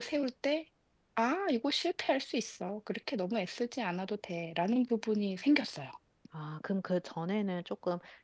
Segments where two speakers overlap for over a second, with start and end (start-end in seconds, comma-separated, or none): none